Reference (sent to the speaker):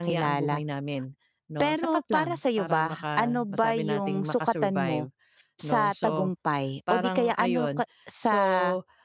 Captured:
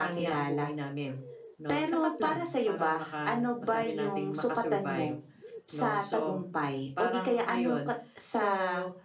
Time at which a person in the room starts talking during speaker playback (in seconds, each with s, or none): none